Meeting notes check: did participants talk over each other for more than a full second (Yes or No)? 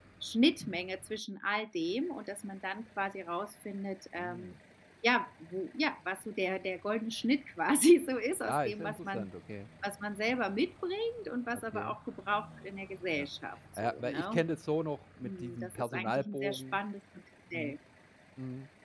Yes